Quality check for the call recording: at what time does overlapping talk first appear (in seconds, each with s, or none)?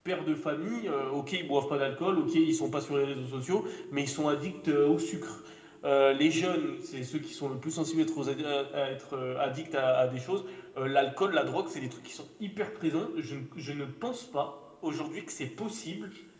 none